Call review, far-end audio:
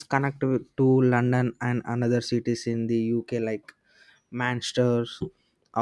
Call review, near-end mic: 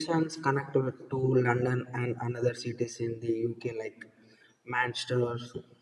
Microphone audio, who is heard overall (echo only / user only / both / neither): echo only